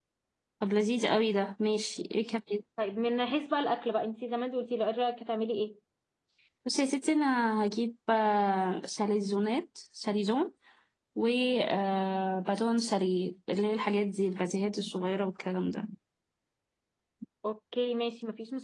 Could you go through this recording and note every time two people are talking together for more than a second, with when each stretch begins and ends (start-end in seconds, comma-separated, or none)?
none